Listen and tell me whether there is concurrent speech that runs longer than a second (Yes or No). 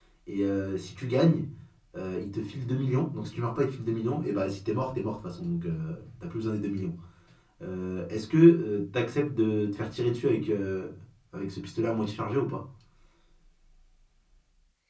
No